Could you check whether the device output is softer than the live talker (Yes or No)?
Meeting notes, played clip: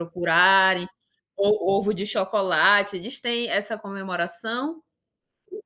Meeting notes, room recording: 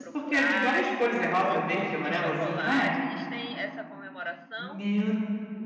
Yes